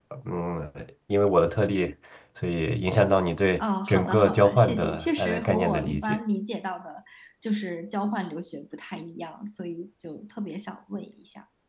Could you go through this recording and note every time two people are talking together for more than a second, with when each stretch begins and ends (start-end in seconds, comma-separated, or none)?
3.6-6.2